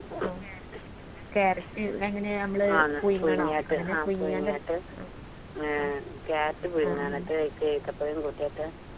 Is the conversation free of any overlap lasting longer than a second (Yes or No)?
No